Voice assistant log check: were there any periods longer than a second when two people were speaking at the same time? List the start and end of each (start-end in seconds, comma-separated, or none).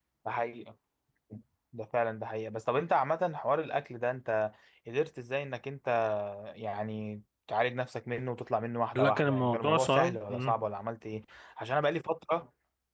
9.0-10.6